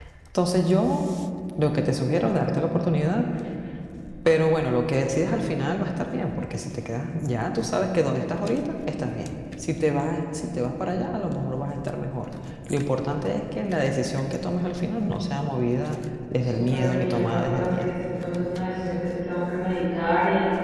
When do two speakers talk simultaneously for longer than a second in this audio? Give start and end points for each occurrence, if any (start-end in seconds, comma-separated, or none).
16.4-17.9